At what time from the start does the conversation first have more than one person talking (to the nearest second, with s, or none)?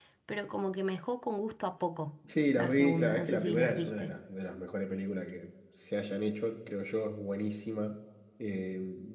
3 s